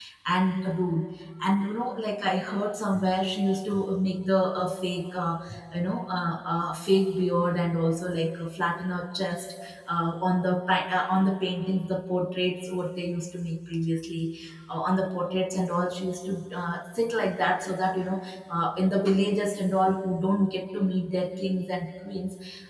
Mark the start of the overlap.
none

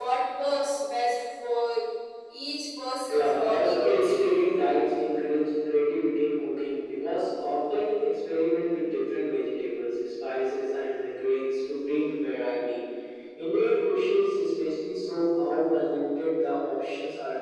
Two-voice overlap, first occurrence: 3.1 s

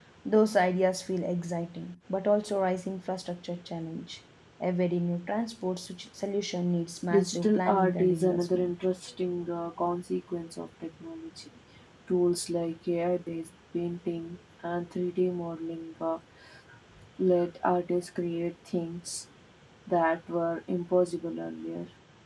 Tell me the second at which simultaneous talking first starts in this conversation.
7.1 s

